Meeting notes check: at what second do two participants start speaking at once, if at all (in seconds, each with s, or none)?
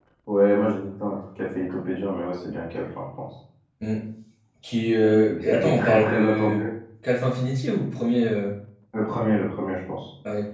5.3 s